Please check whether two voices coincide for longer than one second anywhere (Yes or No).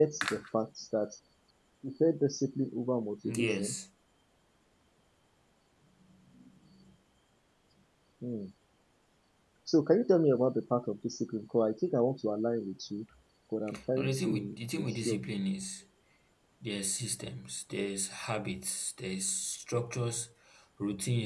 Yes